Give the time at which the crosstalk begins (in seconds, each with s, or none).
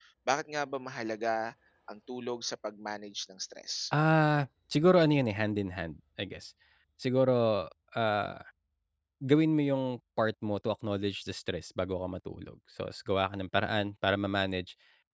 none